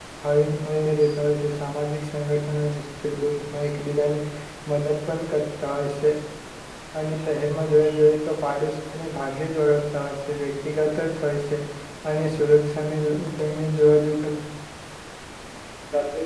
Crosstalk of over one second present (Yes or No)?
No